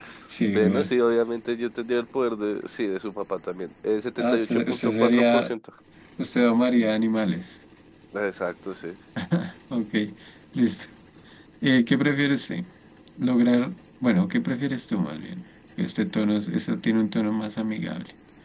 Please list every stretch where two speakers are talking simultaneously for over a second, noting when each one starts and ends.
4.2-5.5

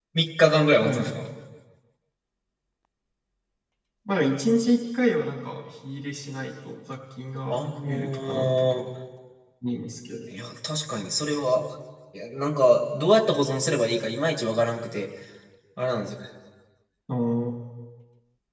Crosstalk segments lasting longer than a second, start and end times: 7.5-8.8

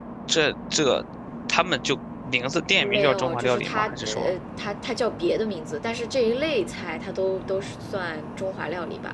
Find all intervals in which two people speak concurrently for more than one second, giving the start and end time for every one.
2.8-4.3

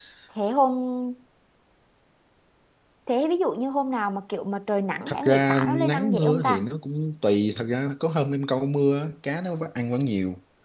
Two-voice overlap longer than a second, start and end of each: 5.1-6.6

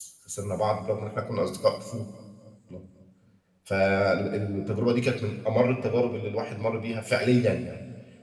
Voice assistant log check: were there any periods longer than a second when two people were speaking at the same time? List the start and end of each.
none

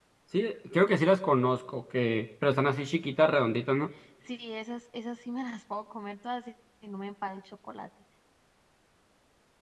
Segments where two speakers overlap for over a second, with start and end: none

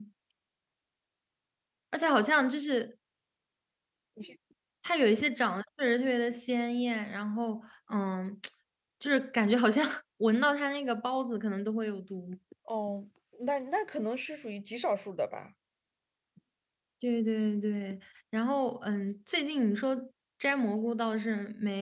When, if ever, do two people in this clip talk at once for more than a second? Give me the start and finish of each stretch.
none

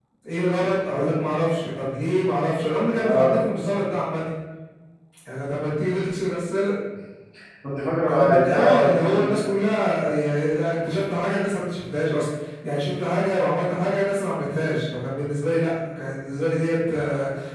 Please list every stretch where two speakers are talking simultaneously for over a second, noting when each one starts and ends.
8.0-9.5

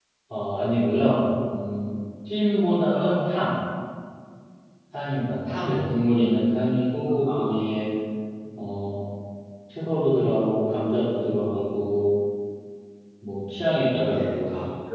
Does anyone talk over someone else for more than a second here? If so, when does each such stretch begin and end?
none

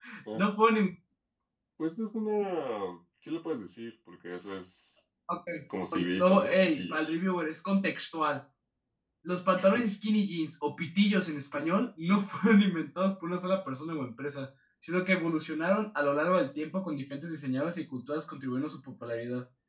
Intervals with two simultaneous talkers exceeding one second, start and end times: 5.9-7.1

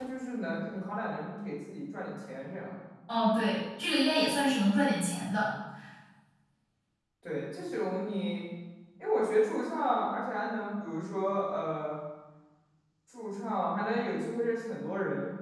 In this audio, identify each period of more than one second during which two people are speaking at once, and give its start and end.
none

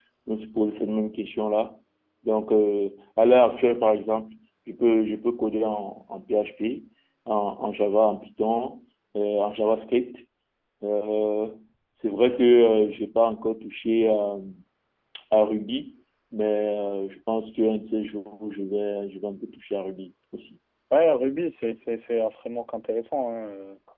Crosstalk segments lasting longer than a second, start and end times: none

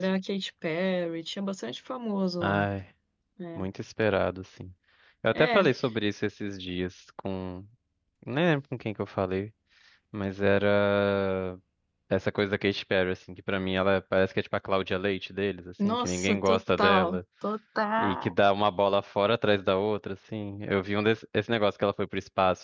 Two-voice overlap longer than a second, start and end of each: 15.8-17.2

